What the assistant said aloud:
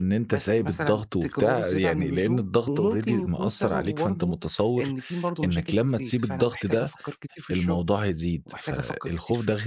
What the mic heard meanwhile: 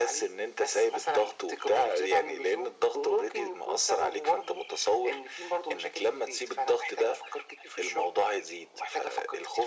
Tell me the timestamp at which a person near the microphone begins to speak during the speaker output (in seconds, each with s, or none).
none